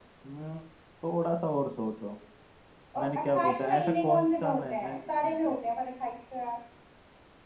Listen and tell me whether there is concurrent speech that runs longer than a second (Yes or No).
Yes